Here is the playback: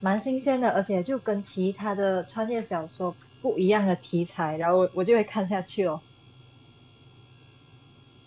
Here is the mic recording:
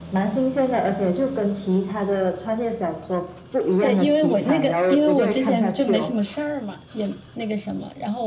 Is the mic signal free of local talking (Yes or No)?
No